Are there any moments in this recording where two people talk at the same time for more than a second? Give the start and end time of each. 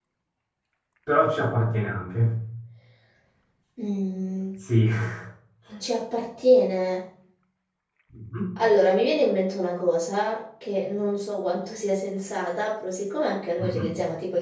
none

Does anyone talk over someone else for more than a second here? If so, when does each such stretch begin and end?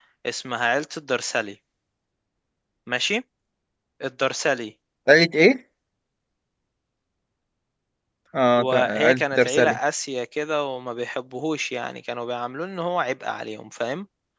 8.6-9.8

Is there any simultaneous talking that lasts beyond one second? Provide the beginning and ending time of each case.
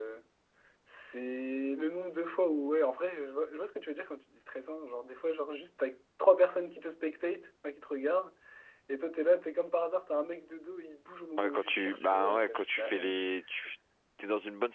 11.4-13.2

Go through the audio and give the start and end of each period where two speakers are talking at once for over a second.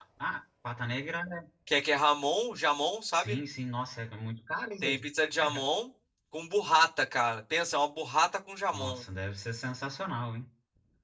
none

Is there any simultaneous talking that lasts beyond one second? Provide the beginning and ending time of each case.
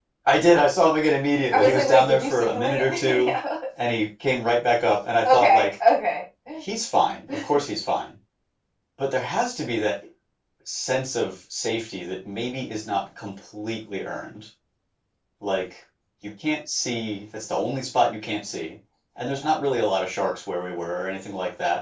1.5-3.3

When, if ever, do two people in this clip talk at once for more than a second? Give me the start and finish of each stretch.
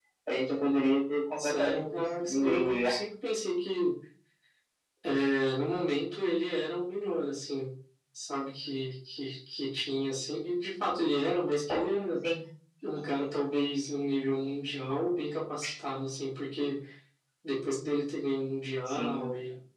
1.4-3.0

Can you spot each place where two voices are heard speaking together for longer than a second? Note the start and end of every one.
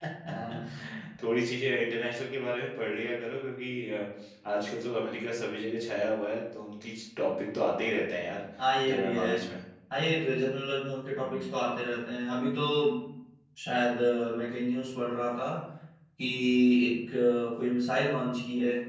none

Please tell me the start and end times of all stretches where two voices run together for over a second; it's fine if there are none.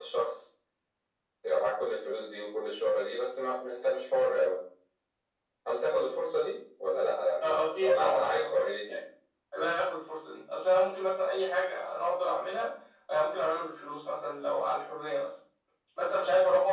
7.4-8.6

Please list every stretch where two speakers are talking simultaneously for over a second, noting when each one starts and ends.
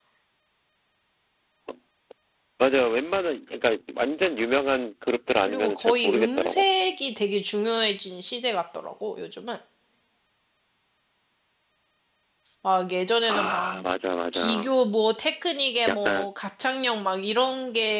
5.4-6.6

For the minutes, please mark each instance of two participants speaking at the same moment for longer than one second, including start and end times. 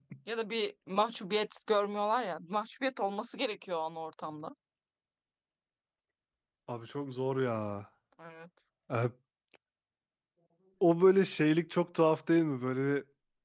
none

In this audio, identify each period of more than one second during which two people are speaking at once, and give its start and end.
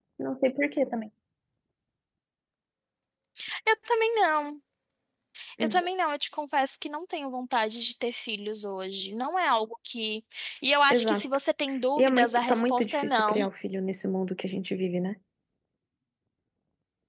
12.0-13.4

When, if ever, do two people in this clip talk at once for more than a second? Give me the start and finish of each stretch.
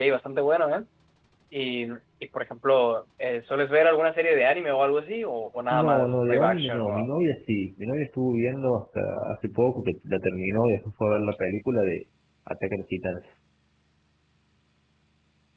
5.7-7.1

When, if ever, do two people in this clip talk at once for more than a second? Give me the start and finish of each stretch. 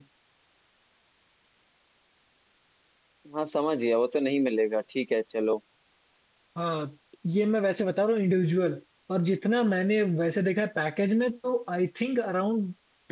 none

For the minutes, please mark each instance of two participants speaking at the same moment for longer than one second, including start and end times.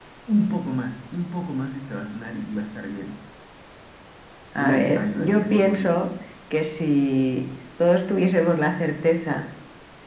4.6-6.0

